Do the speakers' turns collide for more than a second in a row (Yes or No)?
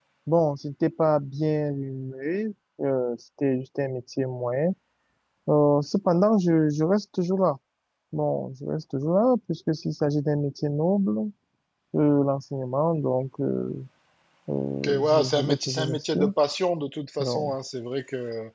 Yes